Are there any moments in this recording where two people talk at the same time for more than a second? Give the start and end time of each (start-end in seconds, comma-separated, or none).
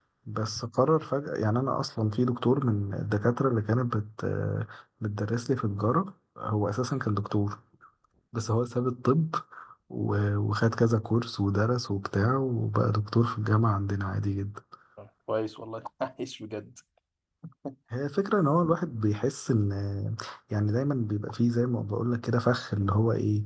none